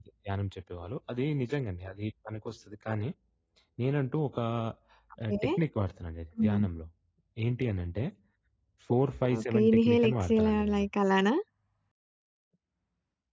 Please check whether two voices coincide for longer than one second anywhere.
Yes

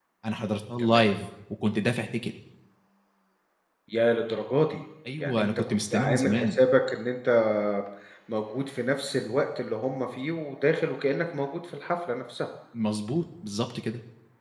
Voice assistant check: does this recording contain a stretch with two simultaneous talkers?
Yes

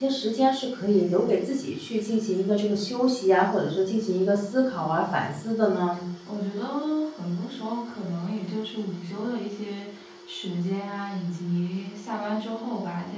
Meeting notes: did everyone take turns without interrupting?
Yes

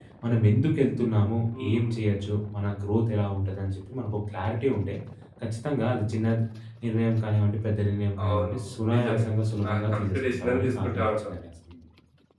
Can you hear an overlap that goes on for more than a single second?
Yes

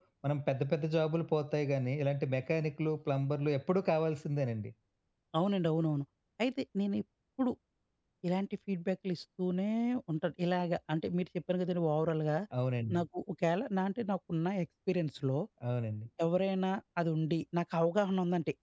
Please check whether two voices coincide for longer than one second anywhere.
No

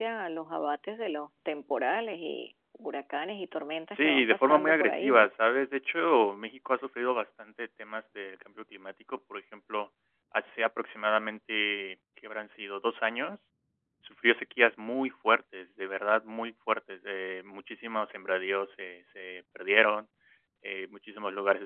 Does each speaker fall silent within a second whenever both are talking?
No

